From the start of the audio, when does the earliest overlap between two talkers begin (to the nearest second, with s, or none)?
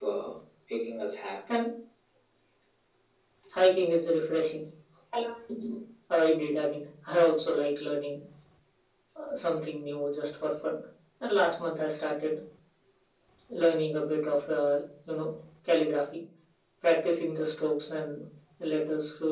none